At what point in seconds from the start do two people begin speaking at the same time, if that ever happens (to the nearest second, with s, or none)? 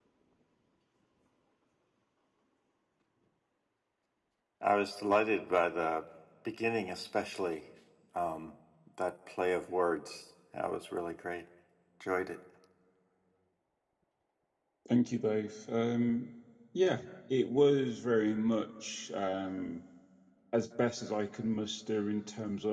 none